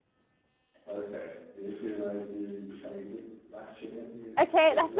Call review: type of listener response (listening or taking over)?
taking over